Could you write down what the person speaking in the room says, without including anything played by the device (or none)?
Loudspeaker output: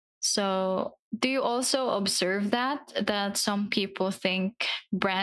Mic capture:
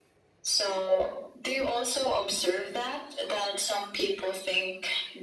none